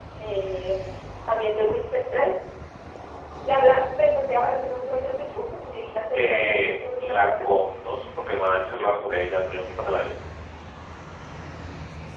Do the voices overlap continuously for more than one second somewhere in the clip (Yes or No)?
Yes